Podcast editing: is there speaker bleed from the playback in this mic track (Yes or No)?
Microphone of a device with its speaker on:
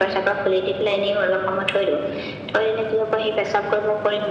Yes